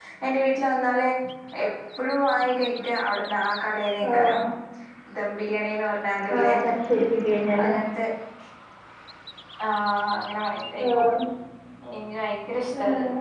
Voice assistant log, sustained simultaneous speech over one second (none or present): none